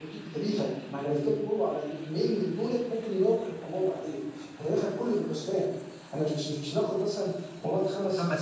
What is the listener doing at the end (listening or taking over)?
listening